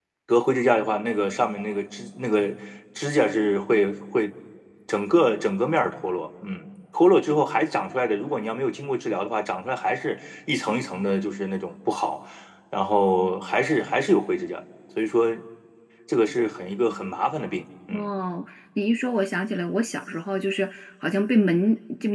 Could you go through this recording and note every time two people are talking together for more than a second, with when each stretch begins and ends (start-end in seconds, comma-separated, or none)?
none